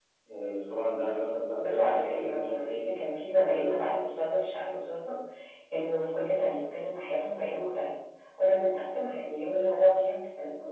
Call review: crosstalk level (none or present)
present